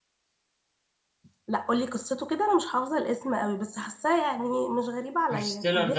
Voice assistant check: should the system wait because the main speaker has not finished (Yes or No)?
No